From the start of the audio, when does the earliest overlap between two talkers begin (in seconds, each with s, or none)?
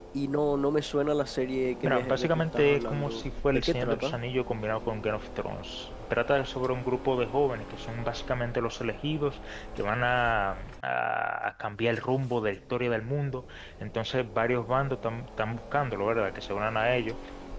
1.8 s